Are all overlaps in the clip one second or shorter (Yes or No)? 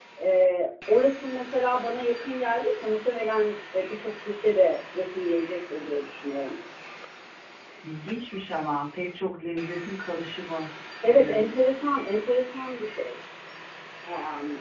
Yes